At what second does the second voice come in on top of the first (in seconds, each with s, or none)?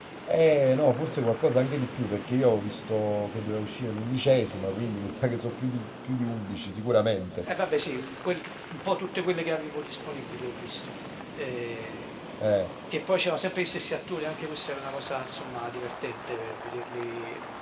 none